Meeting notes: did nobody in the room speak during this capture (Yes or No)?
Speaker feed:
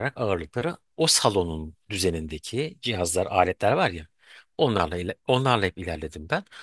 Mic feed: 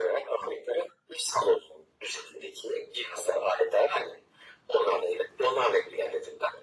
Yes